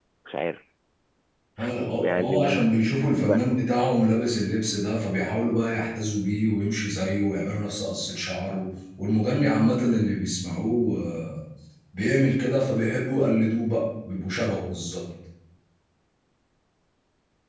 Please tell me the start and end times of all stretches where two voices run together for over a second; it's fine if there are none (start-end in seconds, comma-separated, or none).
2.0-3.4